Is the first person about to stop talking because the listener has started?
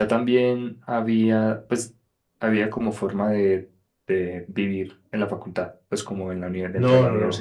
Yes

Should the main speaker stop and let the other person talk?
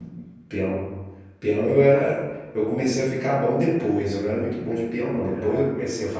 No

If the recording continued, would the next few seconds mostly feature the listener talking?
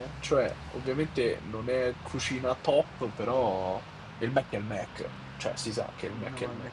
Yes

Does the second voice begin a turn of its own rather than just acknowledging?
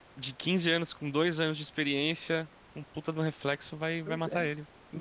Yes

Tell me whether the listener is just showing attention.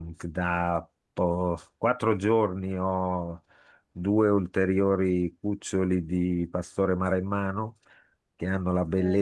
Yes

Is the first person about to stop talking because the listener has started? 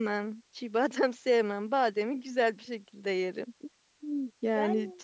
No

